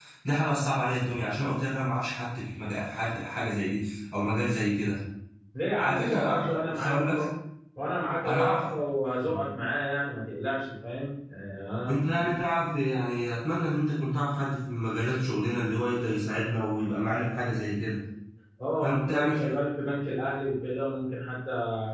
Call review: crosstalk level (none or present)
present